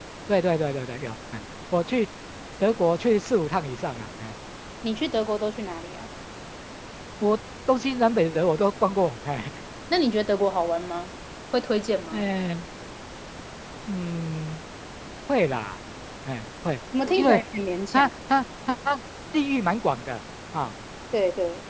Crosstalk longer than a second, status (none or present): none